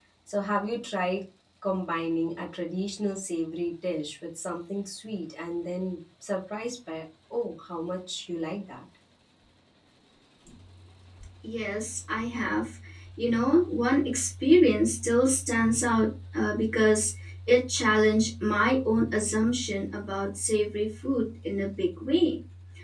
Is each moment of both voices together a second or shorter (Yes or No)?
Yes